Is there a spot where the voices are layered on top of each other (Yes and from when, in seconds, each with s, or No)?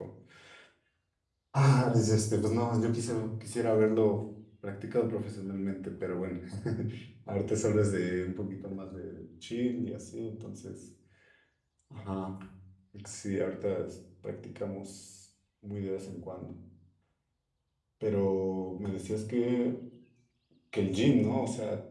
No